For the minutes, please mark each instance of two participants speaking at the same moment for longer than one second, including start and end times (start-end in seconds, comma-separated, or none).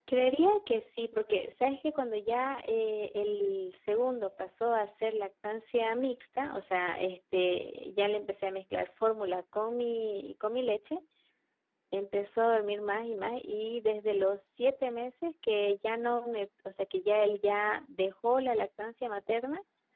none